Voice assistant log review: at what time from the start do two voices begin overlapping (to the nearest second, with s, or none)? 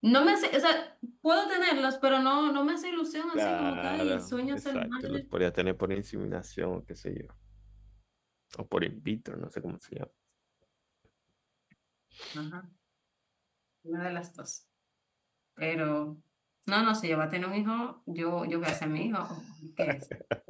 3 s